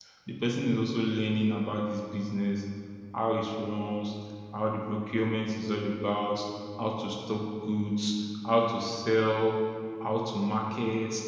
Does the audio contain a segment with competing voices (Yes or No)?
No